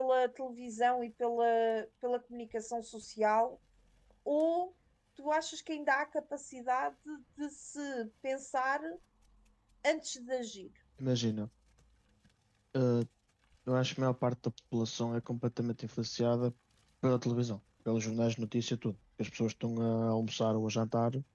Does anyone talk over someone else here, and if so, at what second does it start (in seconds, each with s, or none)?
none